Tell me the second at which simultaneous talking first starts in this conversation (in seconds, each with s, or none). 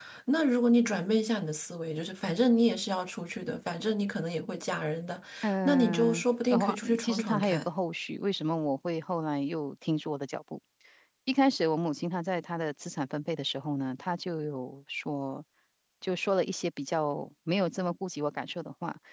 5.7 s